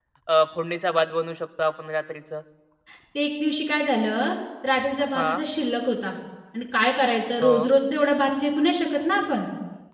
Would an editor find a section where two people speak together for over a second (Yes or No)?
No